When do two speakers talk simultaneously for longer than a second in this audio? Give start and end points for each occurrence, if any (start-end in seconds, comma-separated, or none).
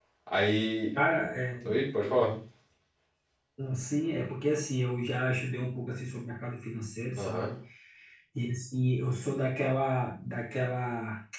none